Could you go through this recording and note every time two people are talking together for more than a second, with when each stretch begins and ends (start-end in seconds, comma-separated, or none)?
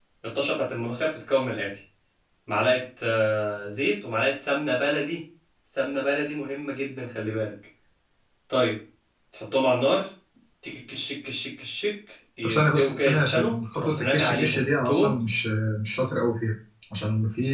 12.4-15.2